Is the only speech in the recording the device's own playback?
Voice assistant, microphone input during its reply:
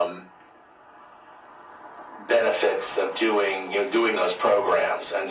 Yes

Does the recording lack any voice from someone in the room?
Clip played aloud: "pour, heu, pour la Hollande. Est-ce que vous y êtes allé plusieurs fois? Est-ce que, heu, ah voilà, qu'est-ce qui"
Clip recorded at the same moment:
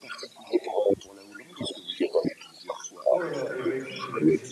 No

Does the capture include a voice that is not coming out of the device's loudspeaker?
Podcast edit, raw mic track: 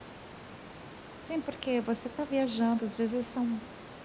Yes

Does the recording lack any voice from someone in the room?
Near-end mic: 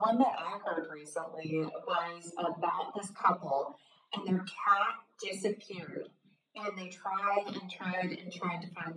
Yes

